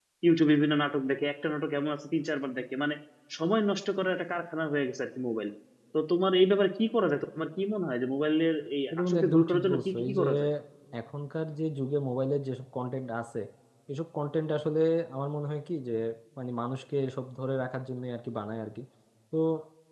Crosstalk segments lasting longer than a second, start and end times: 8.9-10.2

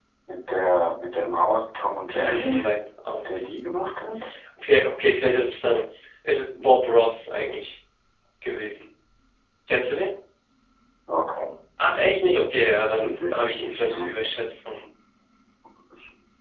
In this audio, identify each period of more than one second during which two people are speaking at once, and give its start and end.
12.2-14.1

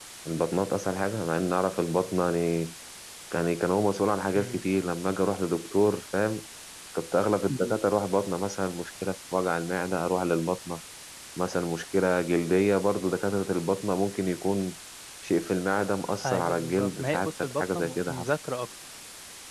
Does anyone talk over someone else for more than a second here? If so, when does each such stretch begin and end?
16.2-18.3

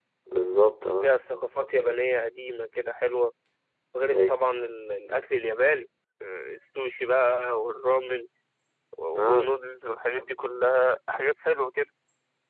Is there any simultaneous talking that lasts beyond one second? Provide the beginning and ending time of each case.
none

